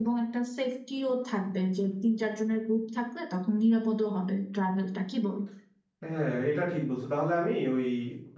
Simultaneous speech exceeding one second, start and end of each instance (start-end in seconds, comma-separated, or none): none